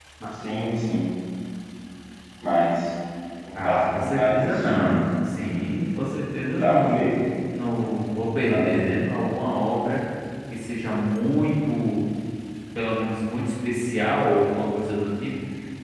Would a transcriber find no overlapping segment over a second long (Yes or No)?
No